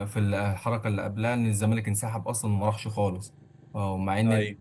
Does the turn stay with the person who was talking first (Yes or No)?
Yes